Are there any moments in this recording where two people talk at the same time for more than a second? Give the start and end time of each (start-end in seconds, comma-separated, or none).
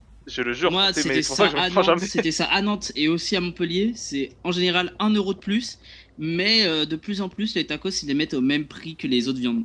0.7-2.1